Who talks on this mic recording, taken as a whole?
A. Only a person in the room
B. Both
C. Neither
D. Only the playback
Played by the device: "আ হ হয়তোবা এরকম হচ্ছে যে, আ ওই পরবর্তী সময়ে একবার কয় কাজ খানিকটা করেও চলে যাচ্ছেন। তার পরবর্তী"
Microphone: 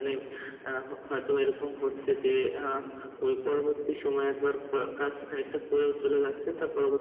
D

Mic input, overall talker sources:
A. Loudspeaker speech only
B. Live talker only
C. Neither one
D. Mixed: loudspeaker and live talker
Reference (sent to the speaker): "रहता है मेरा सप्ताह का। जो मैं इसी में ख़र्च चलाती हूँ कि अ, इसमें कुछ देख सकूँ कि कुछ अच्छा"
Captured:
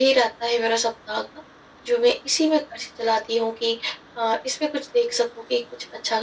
A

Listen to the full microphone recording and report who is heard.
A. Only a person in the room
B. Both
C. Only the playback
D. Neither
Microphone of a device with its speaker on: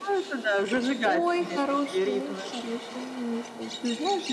B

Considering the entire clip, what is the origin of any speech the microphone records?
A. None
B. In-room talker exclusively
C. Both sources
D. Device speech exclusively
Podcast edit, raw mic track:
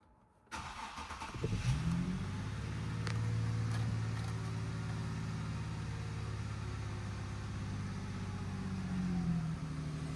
A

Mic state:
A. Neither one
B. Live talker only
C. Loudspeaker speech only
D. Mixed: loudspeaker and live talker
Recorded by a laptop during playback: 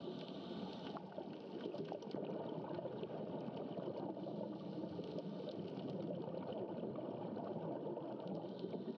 A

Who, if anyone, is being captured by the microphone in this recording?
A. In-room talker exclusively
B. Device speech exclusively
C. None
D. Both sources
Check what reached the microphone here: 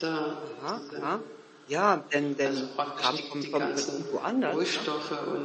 D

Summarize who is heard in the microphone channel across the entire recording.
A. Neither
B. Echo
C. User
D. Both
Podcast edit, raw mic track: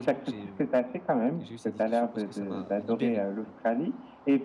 D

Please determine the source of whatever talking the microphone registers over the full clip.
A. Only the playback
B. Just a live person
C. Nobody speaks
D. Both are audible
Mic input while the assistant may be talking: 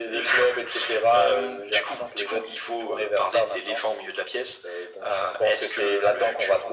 A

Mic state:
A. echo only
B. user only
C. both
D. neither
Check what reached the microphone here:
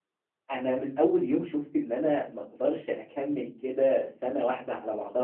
B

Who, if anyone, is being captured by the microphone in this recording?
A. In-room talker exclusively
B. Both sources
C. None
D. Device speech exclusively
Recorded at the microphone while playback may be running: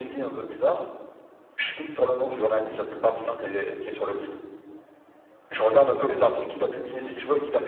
B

